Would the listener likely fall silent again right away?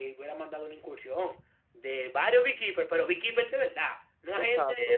No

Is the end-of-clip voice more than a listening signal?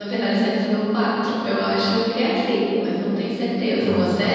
Yes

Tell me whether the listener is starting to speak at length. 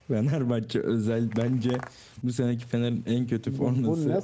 Yes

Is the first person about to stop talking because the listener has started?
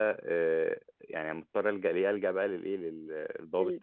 No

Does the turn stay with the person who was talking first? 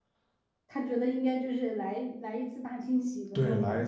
No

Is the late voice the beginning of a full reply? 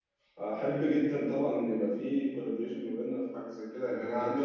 Yes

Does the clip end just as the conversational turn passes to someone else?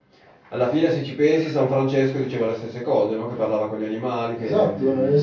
Yes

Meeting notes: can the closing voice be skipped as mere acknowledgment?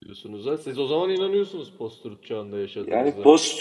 No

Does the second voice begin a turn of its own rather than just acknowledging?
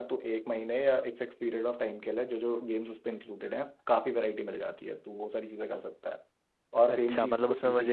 Yes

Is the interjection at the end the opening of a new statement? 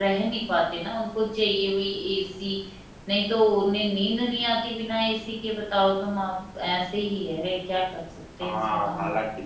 Yes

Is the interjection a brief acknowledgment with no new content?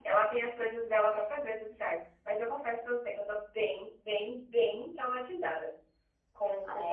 No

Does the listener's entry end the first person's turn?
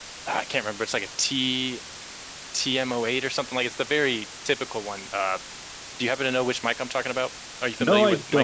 Yes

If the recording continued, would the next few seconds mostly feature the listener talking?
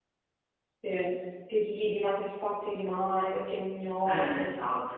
Yes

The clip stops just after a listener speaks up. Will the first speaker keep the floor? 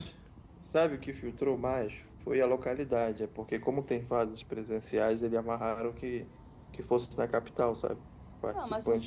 No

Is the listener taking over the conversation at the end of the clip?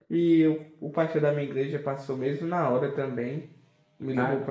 No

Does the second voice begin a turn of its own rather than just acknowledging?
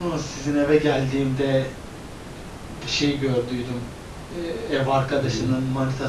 No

